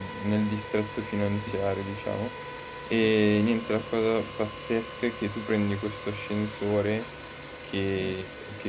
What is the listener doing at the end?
listening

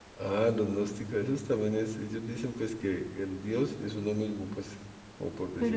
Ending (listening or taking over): taking over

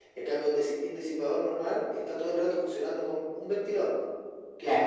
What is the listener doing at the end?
listening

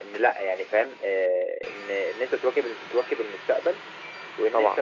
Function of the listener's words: listening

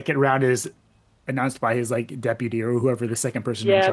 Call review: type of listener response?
taking over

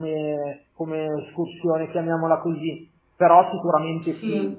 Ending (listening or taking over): taking over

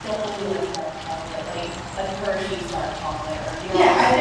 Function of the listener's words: taking over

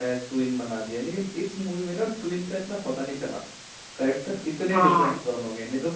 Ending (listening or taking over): listening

